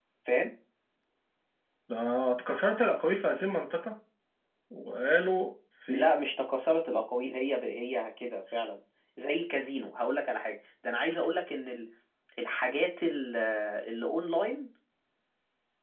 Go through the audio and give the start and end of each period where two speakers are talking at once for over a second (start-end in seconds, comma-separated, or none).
none